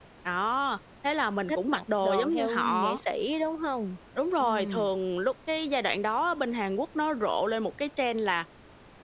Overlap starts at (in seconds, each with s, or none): 1.5 s